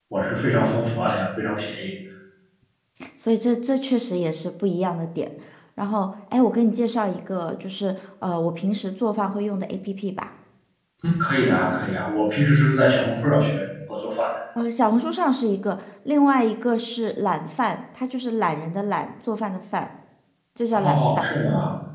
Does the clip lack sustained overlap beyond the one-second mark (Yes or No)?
Yes